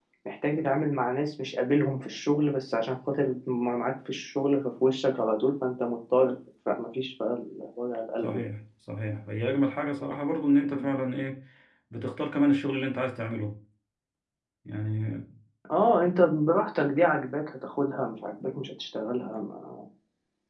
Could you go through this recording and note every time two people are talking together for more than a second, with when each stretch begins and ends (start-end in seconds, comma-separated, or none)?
none